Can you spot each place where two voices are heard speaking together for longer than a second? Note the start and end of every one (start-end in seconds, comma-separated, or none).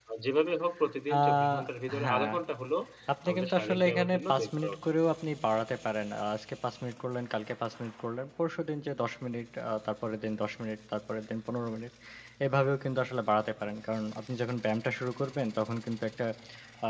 3.3-4.7